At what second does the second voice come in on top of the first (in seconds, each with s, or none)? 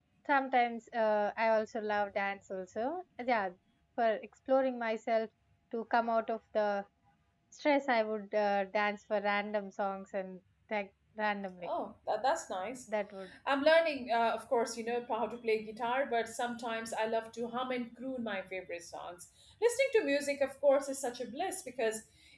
none